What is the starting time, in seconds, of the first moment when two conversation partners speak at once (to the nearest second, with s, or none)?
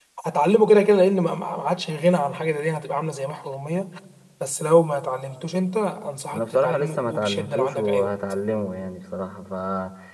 6 s